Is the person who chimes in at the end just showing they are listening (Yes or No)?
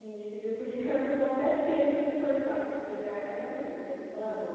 No